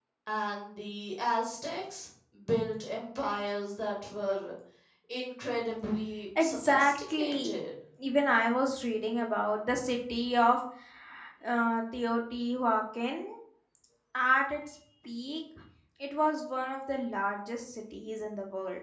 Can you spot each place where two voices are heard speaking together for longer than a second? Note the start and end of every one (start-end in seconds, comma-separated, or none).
6.4-7.6